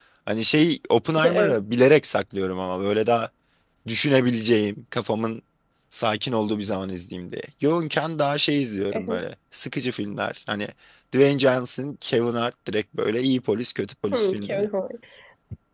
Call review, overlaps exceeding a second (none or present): none